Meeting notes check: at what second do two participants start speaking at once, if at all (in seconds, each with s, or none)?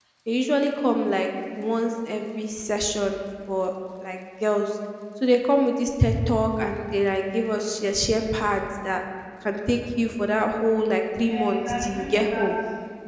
11.2 s